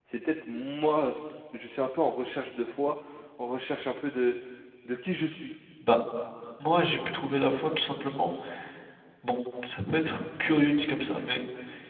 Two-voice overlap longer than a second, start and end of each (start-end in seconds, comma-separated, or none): none